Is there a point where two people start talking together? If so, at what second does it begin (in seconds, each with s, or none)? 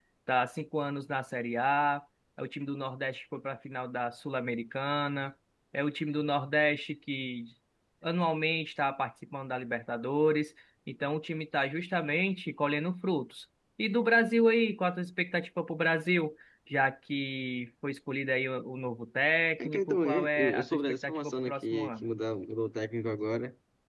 19.6 s